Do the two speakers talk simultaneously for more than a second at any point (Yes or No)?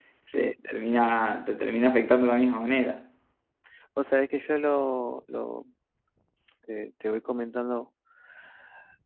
No